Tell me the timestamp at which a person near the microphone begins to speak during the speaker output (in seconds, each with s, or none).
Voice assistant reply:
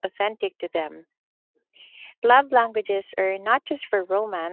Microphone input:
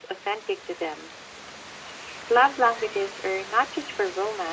none